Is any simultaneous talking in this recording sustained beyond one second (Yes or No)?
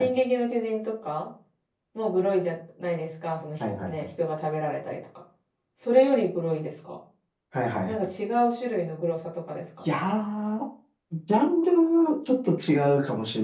No